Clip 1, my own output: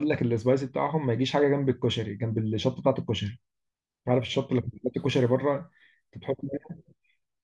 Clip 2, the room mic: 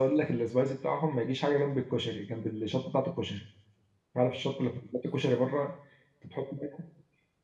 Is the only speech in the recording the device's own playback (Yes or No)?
Yes